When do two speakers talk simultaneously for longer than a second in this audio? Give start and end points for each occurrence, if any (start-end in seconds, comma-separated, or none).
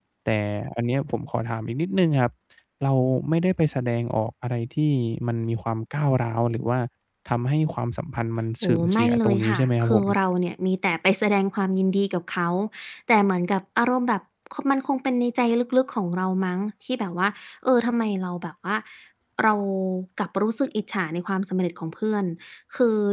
8.6-10.1